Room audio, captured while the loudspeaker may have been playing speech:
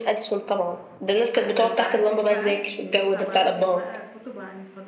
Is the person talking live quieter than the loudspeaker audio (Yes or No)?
Yes